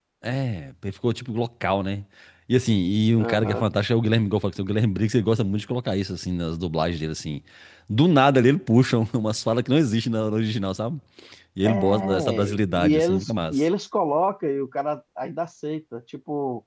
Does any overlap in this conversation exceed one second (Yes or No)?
Yes